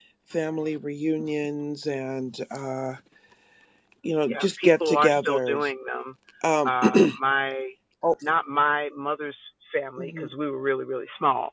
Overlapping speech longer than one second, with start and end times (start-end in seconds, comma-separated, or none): 4.3-5.7